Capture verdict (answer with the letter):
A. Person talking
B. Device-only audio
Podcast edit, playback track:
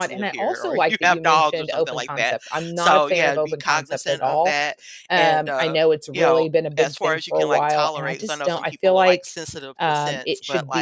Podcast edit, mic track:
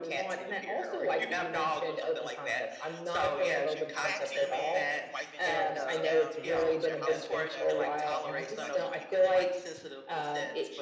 A